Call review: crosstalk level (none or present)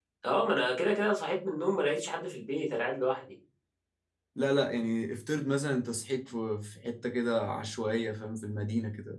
none